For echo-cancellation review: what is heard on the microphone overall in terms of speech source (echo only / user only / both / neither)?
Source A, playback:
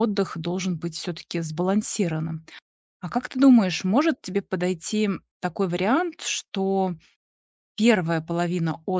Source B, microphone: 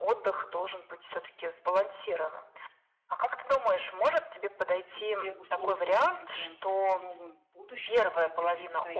both